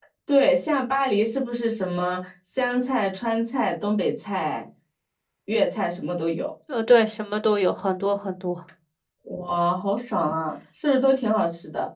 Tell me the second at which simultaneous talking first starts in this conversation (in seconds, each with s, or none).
none